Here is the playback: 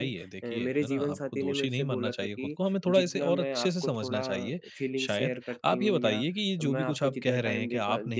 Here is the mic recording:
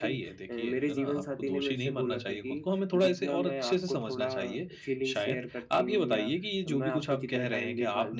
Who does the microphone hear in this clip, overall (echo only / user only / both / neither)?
echo only